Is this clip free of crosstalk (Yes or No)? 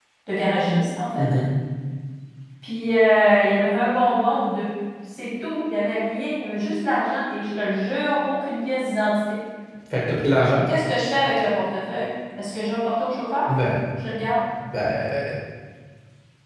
Yes